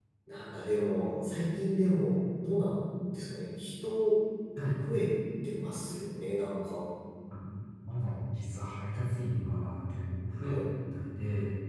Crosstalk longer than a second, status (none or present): none